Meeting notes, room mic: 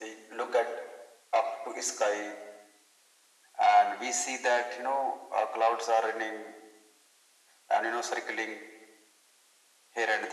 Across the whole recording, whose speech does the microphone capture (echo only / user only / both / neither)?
echo only